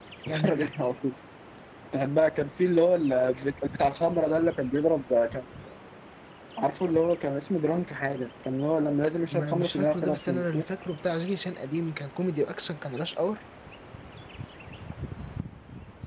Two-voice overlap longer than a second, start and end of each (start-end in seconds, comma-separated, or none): 9.3-10.6